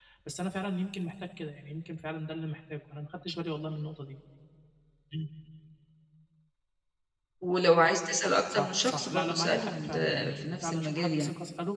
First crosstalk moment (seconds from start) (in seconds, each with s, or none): 8.5 s